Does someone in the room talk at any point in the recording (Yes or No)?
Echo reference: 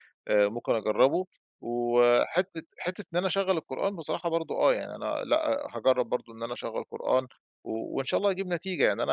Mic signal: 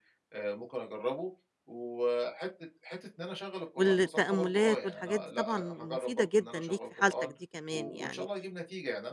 Yes